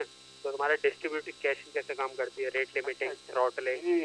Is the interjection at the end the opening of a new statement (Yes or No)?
Yes